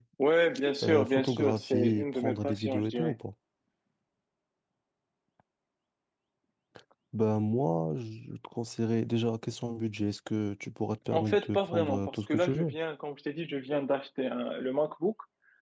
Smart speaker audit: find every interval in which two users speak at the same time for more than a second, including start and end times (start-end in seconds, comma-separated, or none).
0.8-3.1, 11.1-12.8